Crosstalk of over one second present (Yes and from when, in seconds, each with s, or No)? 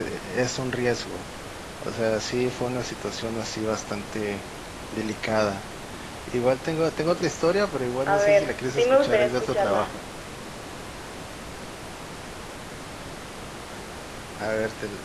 Yes, from 8.1 s